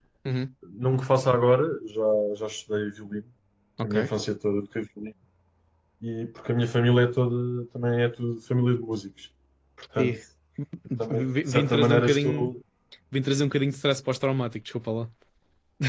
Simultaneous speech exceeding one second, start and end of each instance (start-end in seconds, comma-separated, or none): 11.0-12.5